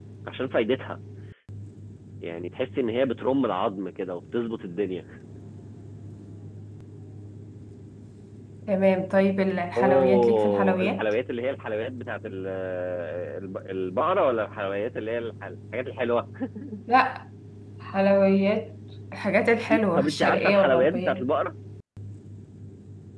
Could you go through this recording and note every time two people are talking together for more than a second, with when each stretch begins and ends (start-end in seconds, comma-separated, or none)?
9.8-11.0, 20.0-21.3